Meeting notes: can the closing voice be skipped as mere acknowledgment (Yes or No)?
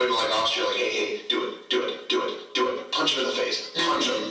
No